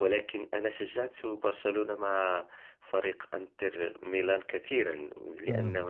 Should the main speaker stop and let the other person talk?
No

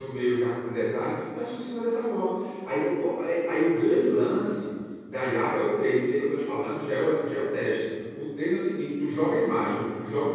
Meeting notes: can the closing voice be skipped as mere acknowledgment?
Yes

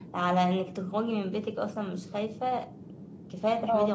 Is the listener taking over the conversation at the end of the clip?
Yes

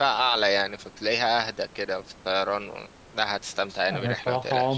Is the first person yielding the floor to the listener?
Yes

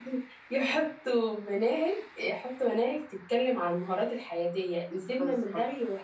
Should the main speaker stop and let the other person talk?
No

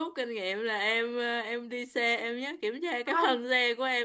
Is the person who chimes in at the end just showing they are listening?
Yes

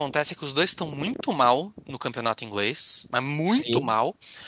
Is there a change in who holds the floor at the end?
No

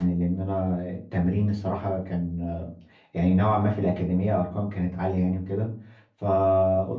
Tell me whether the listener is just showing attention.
Yes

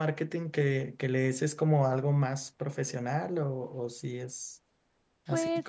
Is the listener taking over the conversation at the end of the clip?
Yes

